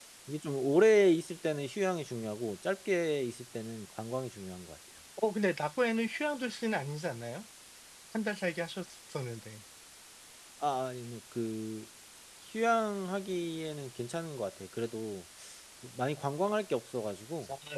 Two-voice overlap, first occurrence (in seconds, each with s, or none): none